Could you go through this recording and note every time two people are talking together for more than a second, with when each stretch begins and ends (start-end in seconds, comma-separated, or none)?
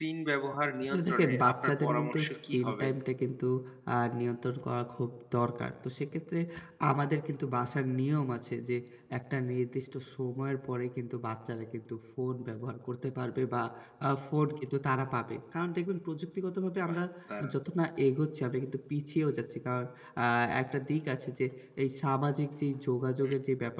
0.8-2.9